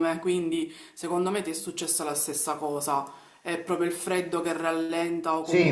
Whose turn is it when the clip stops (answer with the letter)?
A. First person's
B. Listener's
A